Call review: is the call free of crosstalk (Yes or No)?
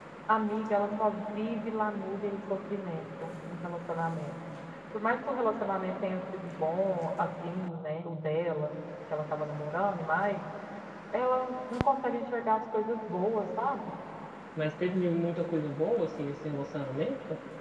Yes